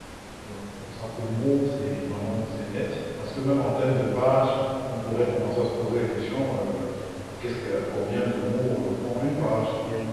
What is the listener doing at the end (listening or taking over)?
taking over